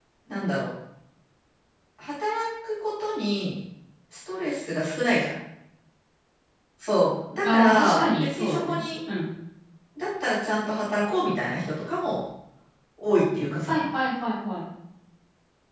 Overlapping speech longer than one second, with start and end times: 7.4-8.8

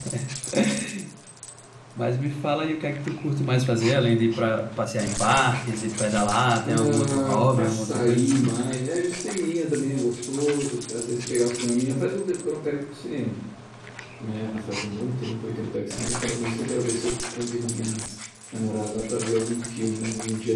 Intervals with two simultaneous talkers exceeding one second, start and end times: 6.6-8.5

